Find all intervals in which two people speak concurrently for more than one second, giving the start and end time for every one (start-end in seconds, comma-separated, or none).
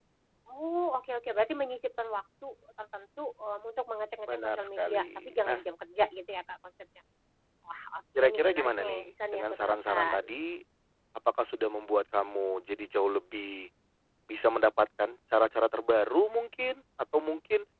4.3-5.6, 8.2-10.2